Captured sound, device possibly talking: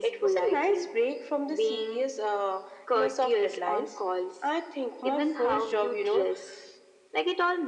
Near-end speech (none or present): none